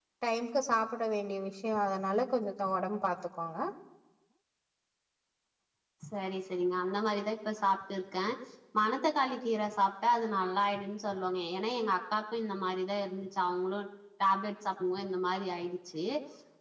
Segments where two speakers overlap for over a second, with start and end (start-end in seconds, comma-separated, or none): none